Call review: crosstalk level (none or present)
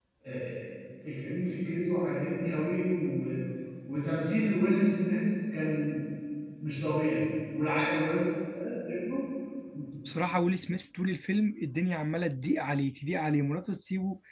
none